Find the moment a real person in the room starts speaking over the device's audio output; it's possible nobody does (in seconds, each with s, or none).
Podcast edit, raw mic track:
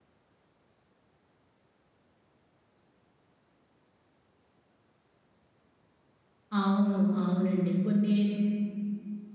6.6 s